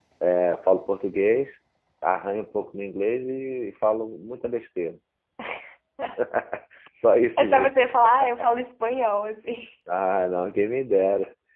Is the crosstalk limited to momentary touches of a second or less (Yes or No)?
Yes